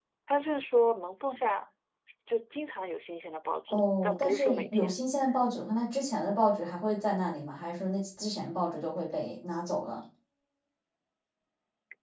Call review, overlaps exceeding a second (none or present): present